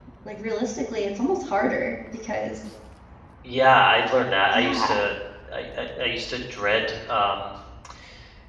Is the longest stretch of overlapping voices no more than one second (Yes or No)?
Yes